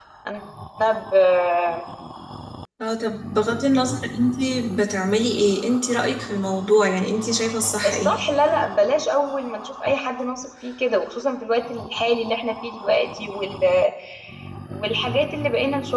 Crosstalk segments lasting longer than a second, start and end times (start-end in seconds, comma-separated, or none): none